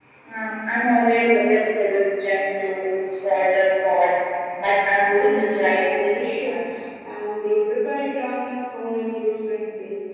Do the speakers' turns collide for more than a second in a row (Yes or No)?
Yes